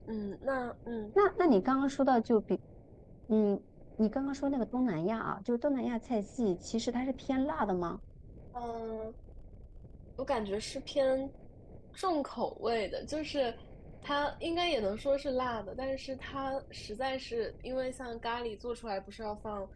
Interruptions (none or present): none